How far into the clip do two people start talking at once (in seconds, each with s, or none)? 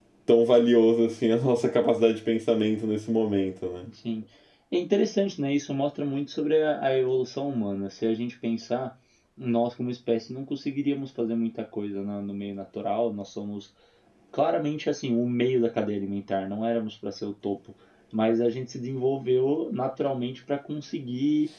none